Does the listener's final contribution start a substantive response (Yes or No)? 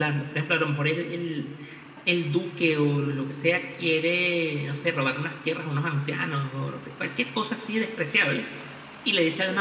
No